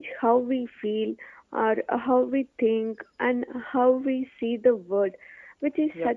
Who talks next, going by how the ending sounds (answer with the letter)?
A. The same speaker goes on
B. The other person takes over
A